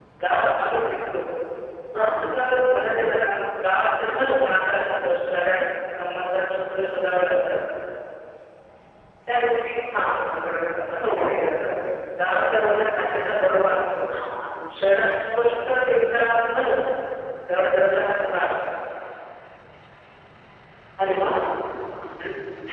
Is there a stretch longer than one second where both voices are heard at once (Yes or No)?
No